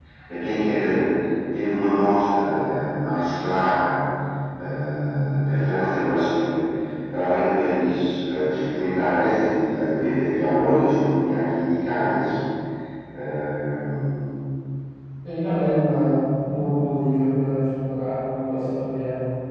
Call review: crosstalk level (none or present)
none